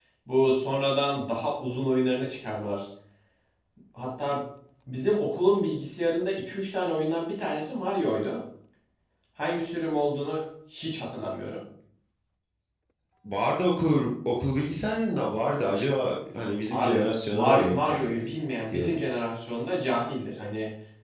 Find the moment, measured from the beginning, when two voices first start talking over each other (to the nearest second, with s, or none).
17 s